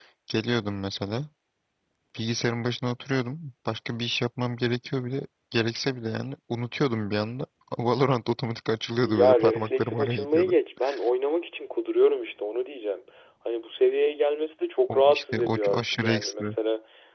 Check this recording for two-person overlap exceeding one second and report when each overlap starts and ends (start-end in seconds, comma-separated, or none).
9.0-10.6, 14.9-16.5